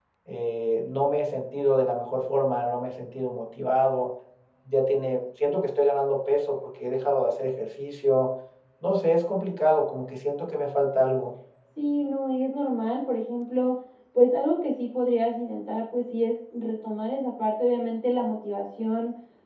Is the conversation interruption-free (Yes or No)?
Yes